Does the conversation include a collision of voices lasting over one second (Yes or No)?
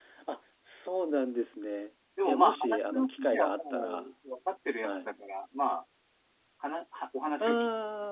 Yes